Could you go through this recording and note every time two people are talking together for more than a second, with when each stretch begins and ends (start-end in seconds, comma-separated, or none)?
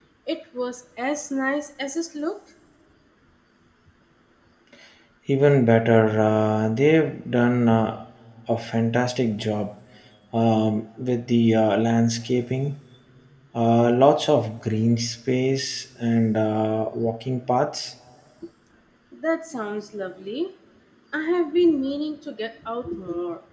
none